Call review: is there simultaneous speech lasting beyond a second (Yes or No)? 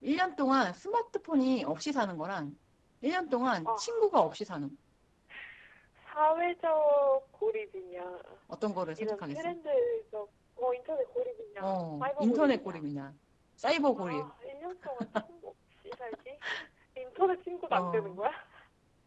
Yes